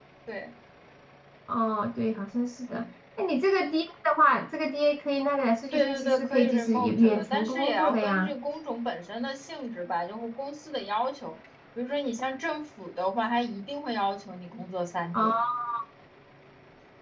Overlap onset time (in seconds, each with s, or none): 5.7 s